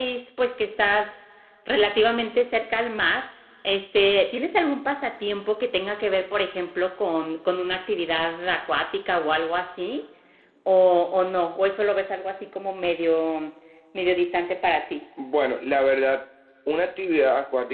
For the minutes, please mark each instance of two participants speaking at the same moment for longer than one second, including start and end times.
none

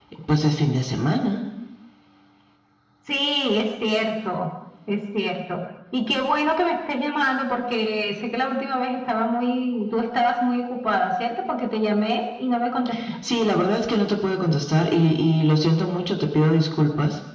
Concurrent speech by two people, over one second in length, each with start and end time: none

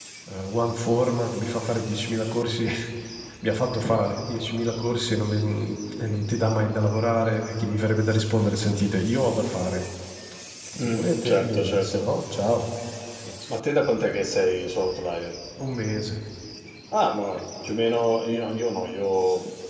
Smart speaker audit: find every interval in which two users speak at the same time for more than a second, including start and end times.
10.8-12.1

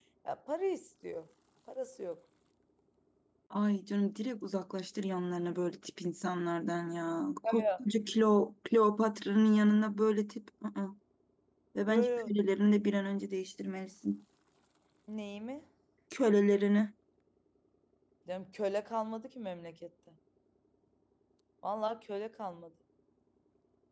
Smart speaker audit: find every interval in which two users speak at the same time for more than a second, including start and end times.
none

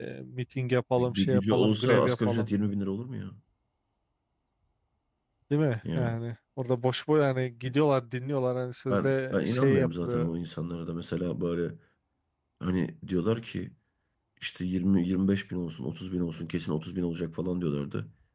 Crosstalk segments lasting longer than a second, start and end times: 1.0-2.5, 8.9-10.3

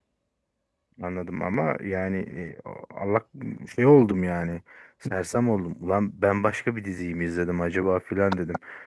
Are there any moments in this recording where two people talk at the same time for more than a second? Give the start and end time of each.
none

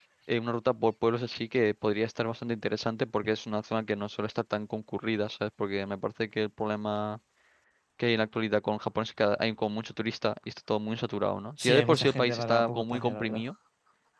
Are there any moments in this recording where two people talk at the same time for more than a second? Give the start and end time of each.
11.6-13.4

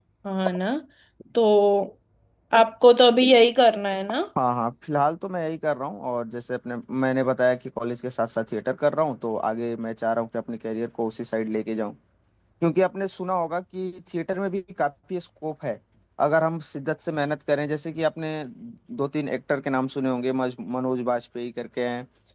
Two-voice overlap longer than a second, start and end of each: none

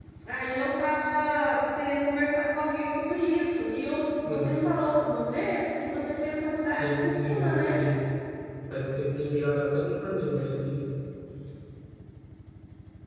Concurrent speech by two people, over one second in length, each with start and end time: 6.5-7.8

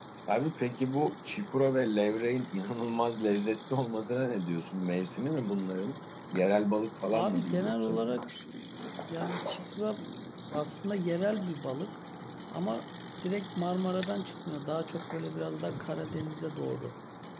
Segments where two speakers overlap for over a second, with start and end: 7.1-8.3

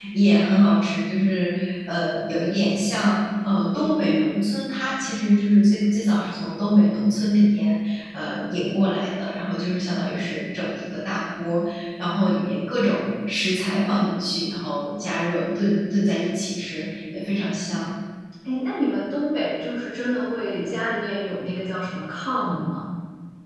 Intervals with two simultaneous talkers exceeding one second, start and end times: none

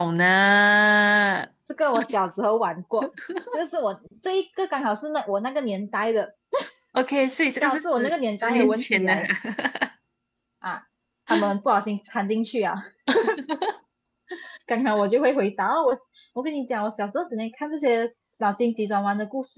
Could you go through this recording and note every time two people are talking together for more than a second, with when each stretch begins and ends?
7.6-9.3

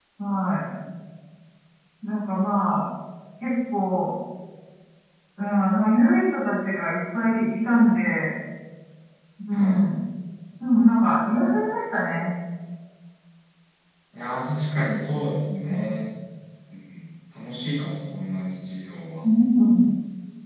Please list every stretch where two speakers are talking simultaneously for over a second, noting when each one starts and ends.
none

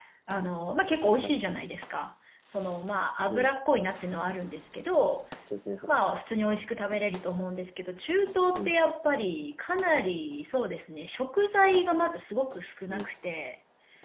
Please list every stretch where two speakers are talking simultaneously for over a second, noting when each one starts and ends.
none

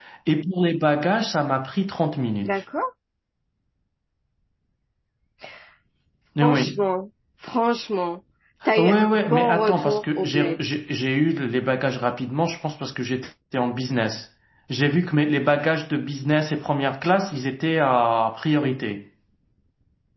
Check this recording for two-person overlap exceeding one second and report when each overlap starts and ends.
8.8-10.6

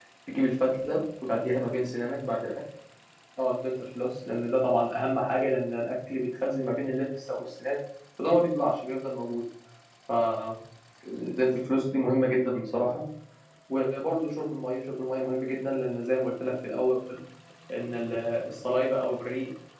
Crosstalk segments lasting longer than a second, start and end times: none

